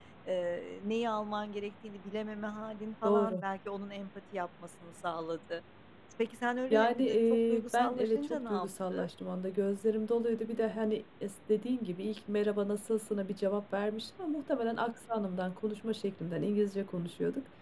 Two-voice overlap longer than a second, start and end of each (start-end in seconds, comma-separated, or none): 6.7-9.0